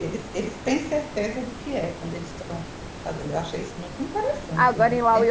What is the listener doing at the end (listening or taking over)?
taking over